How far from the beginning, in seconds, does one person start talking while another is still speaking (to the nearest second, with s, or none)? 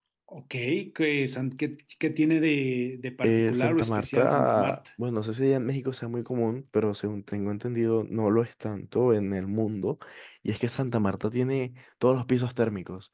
3 s